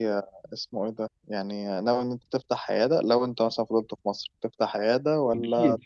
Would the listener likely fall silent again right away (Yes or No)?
No